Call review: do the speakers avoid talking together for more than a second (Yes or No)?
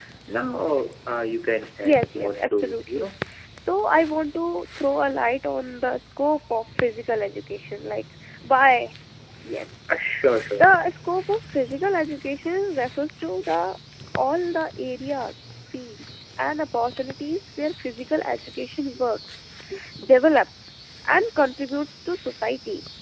No